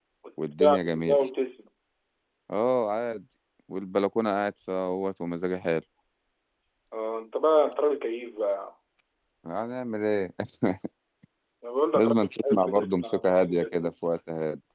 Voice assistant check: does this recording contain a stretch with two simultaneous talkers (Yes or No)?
Yes